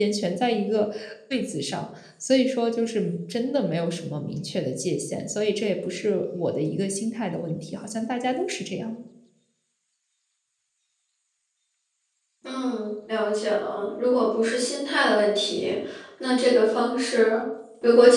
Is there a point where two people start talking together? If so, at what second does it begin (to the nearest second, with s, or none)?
none